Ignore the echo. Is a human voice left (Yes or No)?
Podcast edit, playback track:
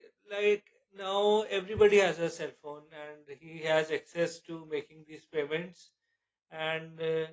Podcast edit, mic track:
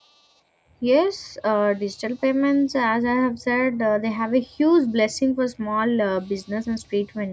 Yes